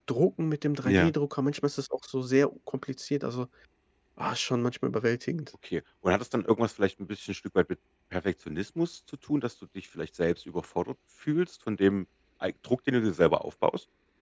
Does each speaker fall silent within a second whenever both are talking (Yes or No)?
Yes